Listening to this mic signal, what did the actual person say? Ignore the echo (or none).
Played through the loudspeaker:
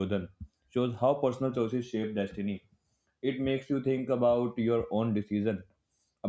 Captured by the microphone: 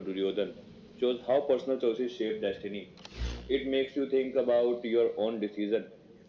none